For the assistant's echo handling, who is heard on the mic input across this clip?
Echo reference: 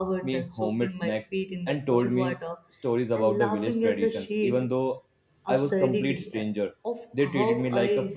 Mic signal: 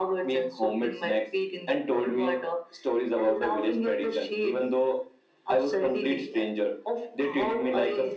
echo only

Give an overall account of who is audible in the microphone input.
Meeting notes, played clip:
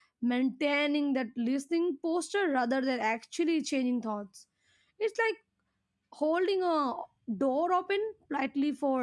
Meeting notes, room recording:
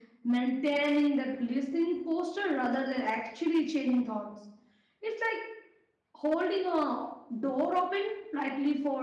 echo only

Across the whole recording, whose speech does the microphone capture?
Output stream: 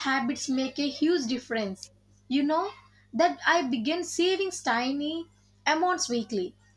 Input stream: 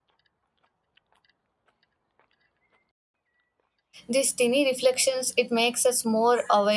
user only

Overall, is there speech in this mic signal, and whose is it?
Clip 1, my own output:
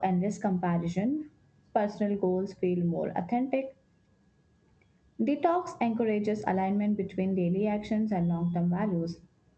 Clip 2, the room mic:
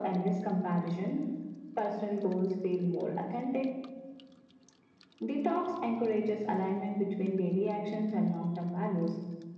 echo only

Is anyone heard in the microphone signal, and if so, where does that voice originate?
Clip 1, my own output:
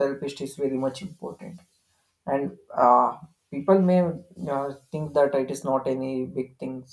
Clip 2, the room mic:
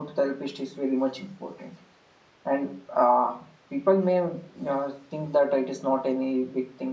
echo only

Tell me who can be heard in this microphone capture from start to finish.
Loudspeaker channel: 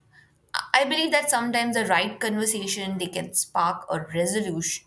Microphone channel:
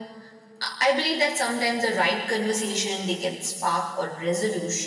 echo only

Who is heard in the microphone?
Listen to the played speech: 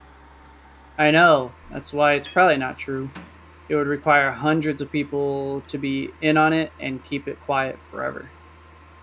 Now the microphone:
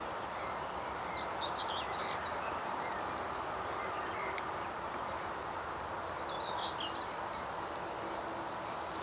neither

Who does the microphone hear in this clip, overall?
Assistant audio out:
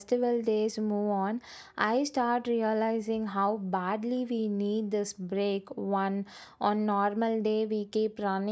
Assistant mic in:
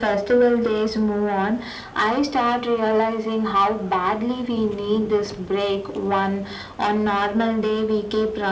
echo only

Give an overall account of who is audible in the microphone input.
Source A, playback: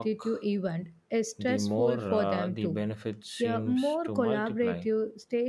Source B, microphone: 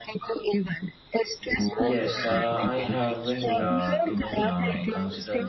both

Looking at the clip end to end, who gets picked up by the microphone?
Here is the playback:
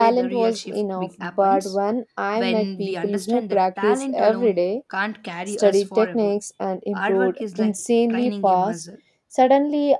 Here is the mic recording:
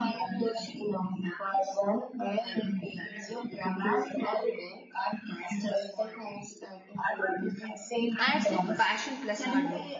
both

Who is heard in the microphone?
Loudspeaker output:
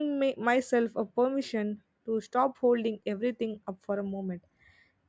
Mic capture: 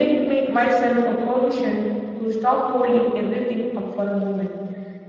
echo only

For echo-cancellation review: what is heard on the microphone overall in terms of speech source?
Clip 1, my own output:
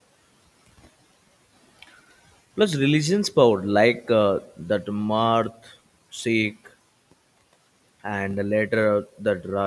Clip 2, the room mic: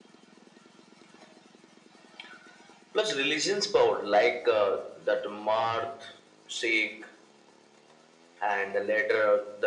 echo only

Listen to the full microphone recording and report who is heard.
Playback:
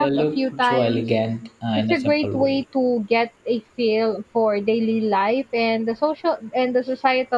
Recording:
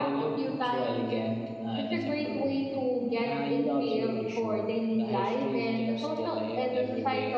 both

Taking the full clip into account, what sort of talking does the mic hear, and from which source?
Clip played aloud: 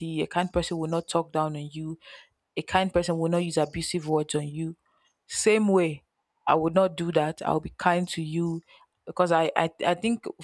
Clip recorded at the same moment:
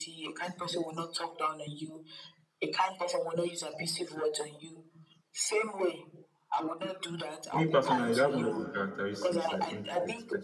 both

